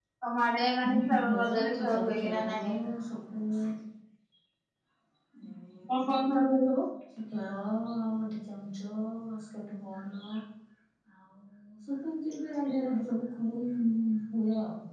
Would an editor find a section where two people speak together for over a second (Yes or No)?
Yes